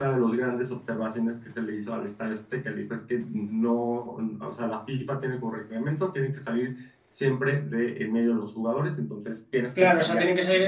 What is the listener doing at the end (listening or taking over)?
taking over